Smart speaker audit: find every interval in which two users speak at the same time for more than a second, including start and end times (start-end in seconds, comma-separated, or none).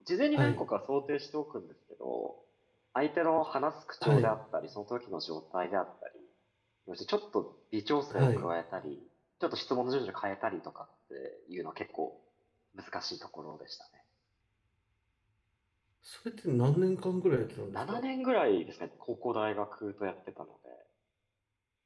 none